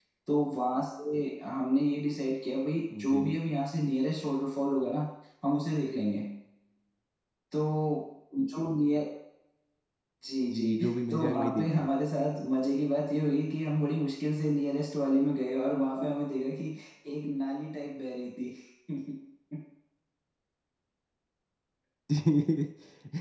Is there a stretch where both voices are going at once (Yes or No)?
Yes